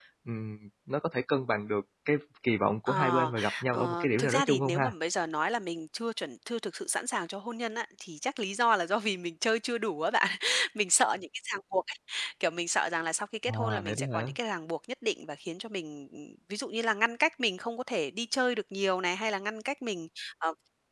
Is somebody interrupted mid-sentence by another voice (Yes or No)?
Yes